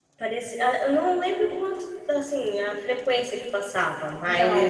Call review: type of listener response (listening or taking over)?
listening